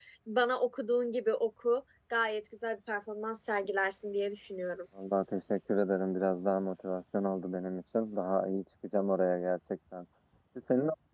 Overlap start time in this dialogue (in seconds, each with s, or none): none